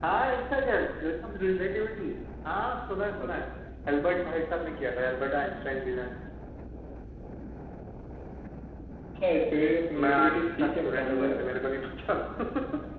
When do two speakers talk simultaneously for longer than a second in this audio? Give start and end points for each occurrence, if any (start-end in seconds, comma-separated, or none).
10.0-11.4